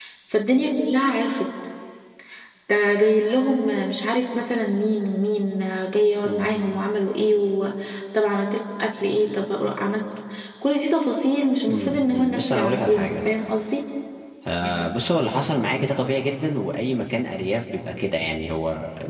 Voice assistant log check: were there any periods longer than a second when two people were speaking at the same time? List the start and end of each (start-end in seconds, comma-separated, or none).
11.7-13.2